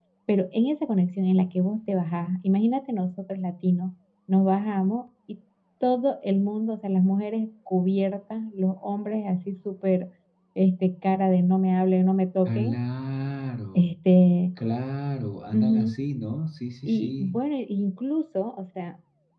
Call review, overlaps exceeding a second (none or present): none